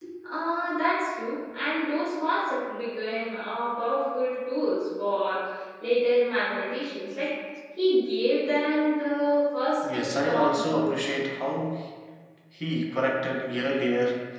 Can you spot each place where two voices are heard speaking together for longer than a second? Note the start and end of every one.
9.9-11.2

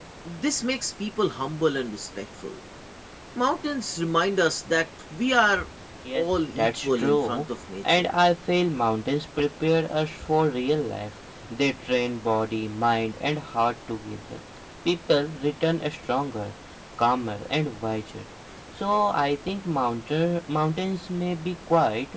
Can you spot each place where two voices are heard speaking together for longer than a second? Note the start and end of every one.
6.1-7.4

